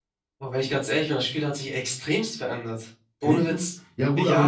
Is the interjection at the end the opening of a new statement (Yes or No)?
Yes